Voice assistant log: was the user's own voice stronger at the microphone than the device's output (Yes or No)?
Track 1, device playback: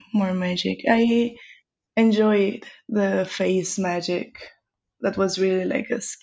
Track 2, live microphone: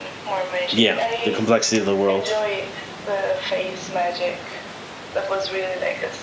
Yes